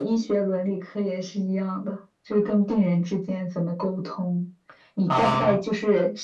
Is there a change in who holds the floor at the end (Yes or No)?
No